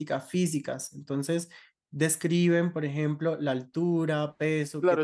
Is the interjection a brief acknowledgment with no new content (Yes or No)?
No